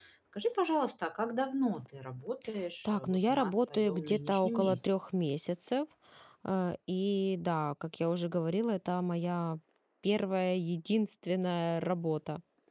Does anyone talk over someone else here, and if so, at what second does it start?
2.9 s

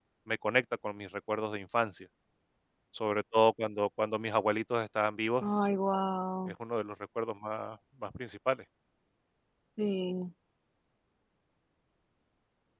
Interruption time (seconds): none

